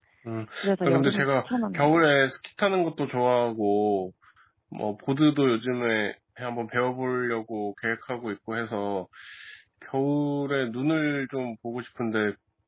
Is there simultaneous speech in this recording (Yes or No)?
Yes